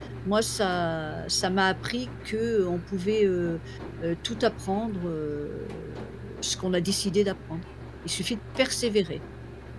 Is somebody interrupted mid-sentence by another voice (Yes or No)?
No